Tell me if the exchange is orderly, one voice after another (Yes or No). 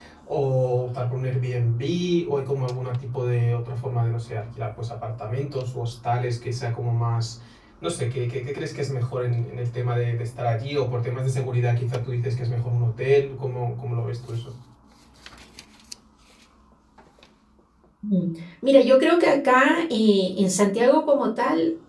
Yes